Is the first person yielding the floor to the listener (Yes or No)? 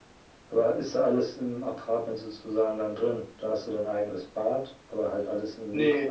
Yes